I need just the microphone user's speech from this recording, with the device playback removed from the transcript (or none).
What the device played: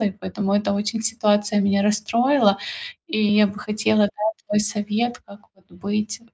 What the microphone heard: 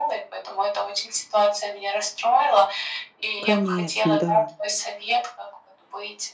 Конечно, да.